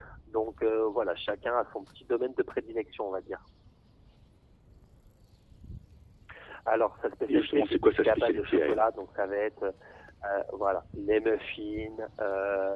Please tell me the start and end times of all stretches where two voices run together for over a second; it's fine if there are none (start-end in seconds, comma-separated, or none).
7.3-8.9